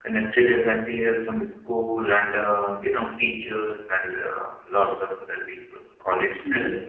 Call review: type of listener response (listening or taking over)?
taking over